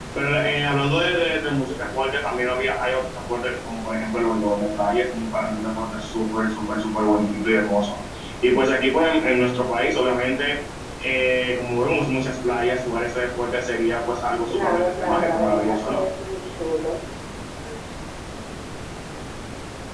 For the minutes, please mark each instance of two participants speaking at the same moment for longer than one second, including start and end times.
14.5-16.0

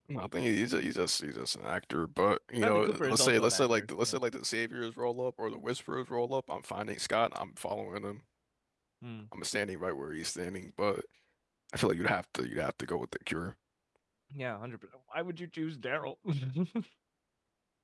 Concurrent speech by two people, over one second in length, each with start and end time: 2.6-4.2

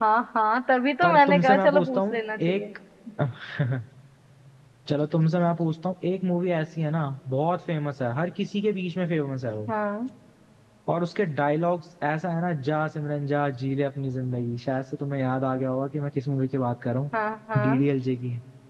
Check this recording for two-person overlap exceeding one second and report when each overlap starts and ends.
1.0-2.6

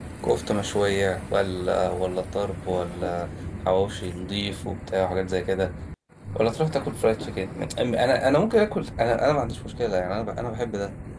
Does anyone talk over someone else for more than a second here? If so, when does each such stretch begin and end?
none

